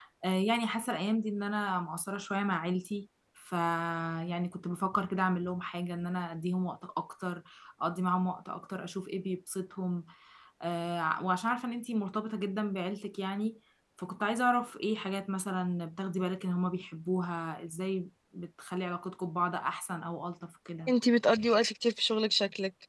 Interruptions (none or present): none